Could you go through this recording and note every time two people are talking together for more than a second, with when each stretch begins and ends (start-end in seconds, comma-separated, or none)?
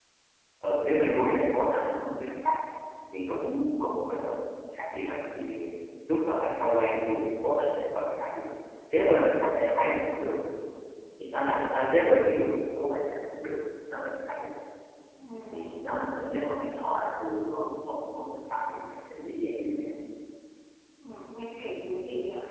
none